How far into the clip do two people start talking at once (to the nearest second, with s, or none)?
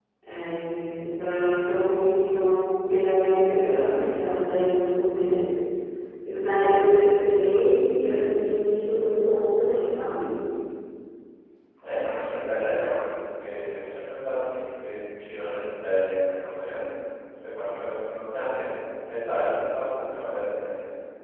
none